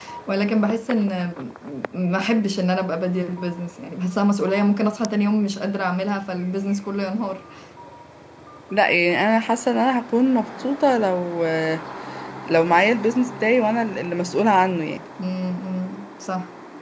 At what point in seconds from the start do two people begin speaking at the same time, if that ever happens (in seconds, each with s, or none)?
none